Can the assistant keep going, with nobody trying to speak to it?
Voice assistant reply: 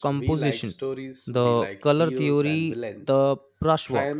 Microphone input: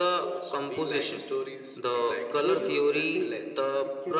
No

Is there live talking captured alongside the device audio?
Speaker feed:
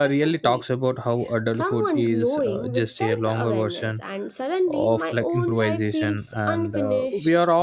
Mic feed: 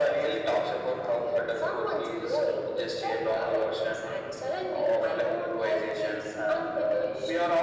No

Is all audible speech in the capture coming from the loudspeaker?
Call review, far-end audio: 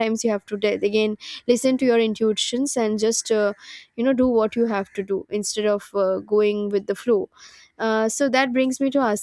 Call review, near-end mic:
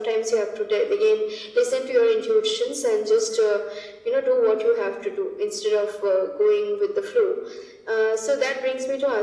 Yes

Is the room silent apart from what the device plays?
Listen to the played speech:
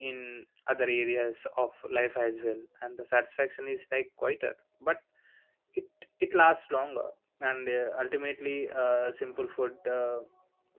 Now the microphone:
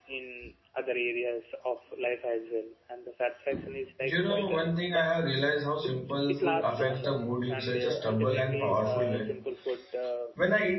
No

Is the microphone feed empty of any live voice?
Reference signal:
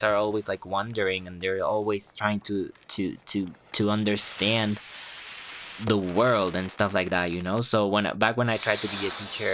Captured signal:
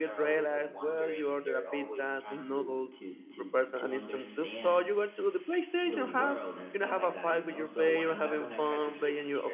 No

